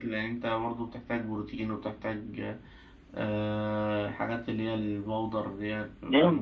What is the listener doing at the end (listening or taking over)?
taking over